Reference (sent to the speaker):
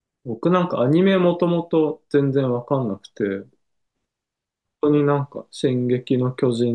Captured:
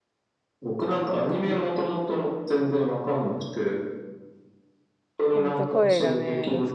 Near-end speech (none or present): present